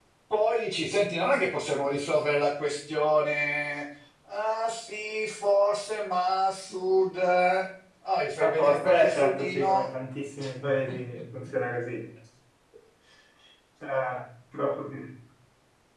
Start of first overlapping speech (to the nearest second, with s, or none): 8 s